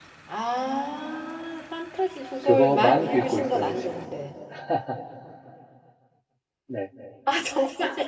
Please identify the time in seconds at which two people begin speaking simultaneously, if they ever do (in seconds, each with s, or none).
2.4 s